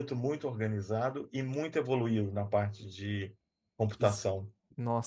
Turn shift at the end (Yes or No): Yes